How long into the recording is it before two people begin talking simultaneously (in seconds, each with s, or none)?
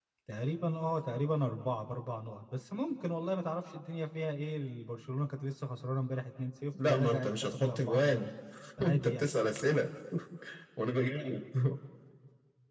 6.8 s